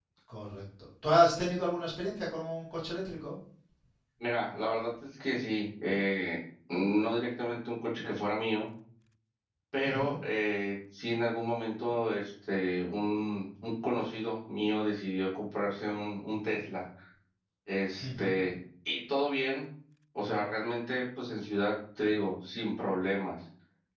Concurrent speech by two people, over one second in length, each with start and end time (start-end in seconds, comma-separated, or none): none